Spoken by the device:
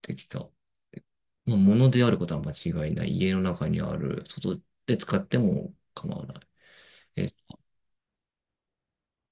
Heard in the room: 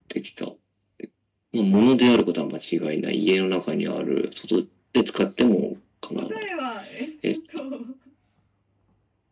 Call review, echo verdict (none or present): present